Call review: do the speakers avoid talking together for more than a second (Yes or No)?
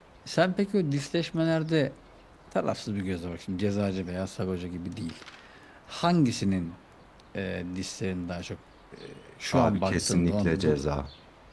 No